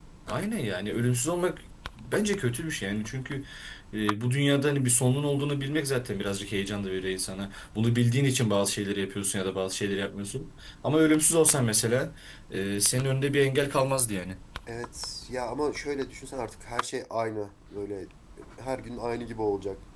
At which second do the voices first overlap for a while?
none

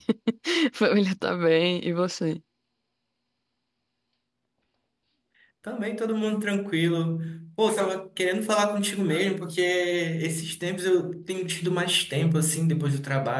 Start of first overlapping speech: none

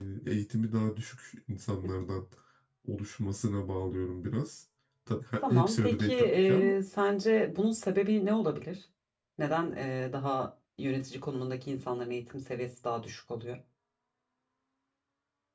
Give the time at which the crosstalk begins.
5.5 s

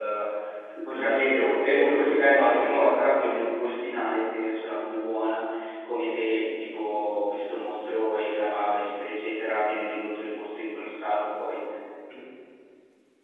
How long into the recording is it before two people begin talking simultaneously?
0.9 s

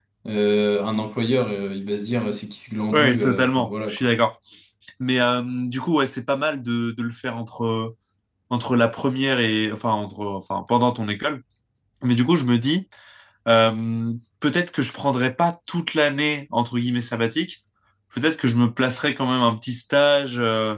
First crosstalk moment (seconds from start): 2.9 s

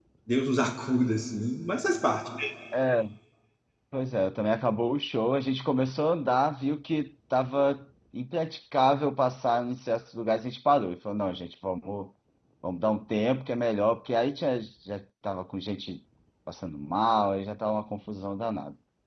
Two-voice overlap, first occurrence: none

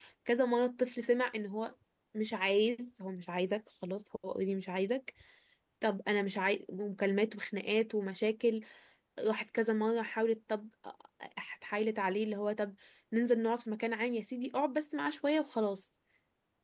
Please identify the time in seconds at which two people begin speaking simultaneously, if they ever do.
none

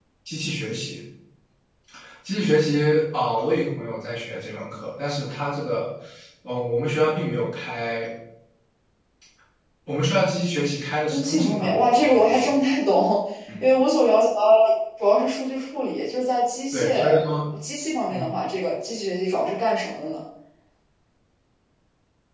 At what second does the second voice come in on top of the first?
11.1 s

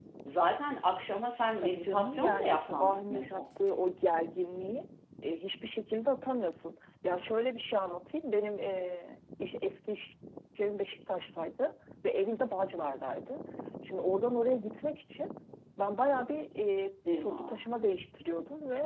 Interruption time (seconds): 1.6 s

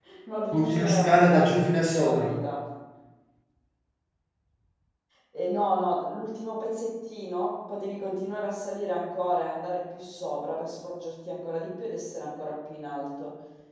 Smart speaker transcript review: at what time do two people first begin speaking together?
0.5 s

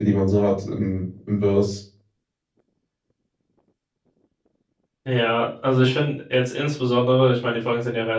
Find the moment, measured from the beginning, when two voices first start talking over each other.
none

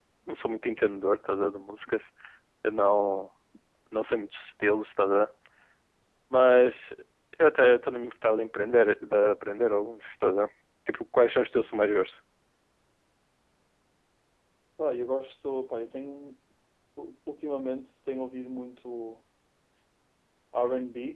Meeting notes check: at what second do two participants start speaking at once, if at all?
none

